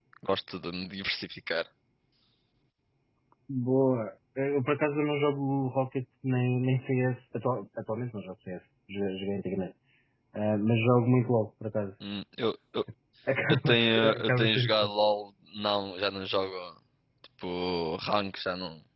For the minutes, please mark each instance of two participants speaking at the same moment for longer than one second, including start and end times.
13.5-14.9

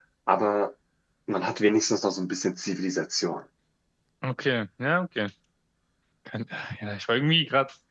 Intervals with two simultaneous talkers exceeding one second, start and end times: none

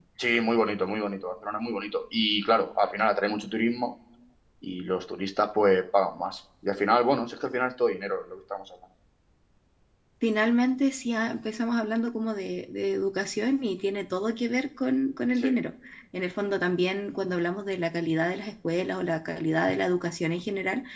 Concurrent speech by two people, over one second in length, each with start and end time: none

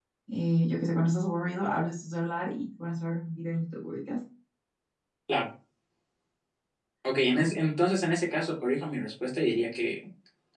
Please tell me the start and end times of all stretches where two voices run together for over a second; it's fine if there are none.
none

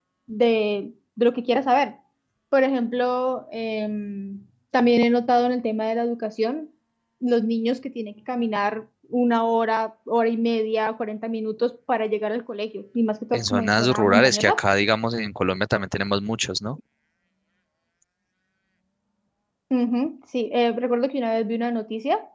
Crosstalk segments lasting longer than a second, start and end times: 13.3-14.6

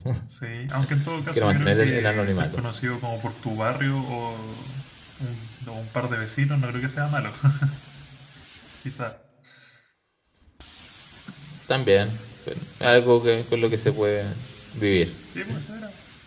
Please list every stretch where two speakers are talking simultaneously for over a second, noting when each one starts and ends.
1.3-2.6

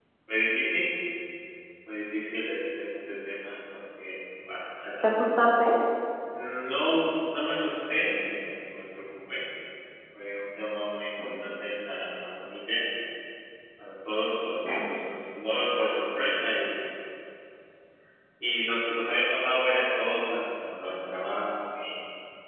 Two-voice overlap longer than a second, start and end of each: none

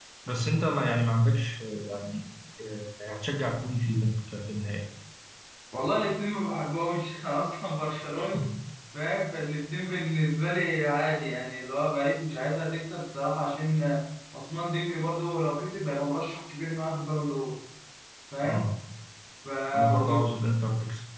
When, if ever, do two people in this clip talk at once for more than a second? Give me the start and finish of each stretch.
none

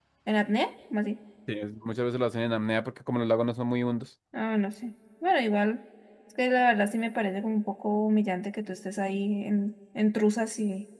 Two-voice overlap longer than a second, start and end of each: none

